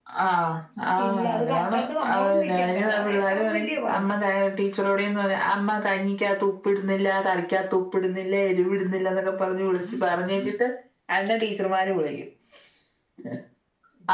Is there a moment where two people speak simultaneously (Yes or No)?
Yes